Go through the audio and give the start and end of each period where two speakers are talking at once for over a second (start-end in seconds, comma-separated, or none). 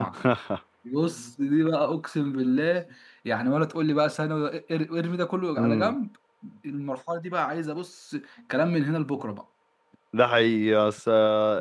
none